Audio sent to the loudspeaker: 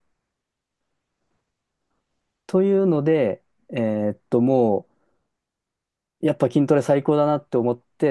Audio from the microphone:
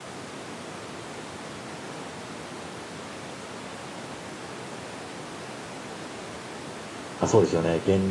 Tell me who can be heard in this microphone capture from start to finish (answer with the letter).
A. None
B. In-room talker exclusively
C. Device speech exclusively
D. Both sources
B